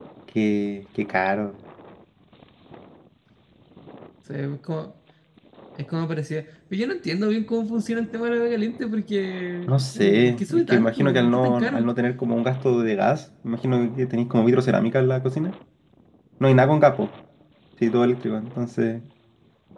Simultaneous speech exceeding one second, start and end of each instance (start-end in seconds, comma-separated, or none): 9.7-11.9